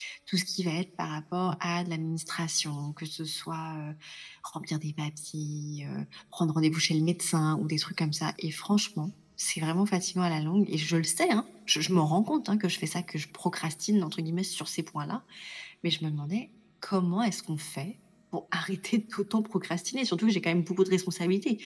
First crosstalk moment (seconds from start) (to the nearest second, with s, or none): none